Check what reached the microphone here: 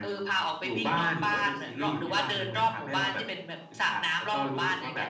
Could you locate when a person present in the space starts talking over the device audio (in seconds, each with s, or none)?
none